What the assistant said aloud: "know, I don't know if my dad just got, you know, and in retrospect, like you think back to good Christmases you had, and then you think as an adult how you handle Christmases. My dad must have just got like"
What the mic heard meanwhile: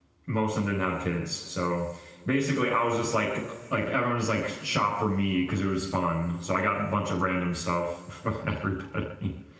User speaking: Yes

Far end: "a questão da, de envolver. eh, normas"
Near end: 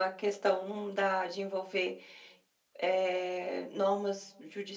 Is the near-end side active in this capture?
No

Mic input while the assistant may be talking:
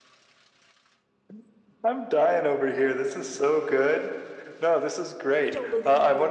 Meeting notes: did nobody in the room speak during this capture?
No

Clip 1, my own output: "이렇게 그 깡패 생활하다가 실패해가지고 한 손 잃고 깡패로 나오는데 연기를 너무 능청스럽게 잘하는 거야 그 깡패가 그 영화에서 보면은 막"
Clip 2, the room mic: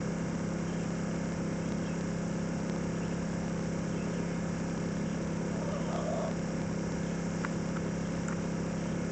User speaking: No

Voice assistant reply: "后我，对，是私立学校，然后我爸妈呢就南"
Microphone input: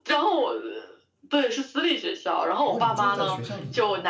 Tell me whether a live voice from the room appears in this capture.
Yes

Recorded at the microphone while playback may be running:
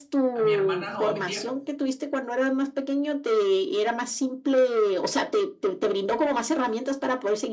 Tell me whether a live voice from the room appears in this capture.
Yes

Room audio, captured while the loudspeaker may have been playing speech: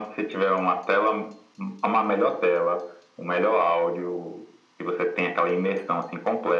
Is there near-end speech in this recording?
No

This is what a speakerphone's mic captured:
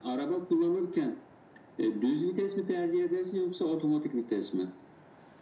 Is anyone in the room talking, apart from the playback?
No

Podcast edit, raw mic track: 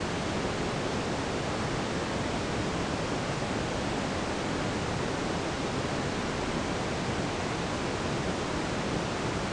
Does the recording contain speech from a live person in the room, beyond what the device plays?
No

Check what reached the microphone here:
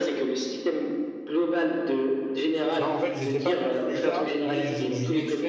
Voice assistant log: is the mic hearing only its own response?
No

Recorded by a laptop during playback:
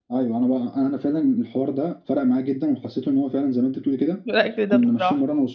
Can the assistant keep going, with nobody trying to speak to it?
No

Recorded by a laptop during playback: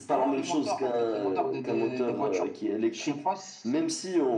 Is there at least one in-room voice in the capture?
No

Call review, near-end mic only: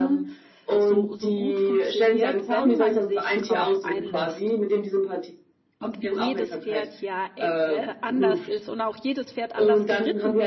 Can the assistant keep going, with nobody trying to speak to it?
No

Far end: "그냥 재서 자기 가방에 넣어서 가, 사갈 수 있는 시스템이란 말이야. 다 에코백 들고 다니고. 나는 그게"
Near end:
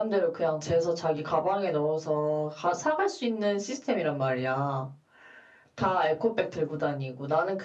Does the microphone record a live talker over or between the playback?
No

